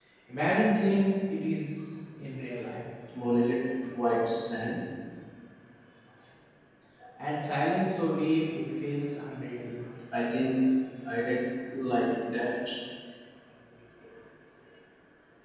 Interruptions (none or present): none